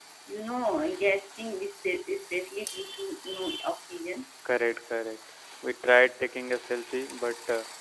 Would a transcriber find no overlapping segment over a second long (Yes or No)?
Yes